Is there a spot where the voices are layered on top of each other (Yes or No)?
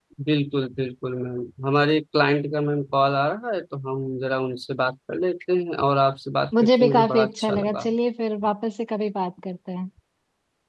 Yes